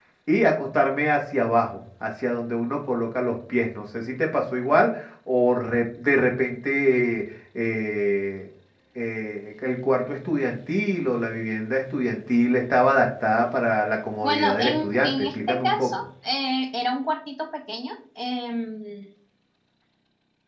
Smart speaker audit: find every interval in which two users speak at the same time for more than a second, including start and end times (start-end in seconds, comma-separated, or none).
14.2-15.9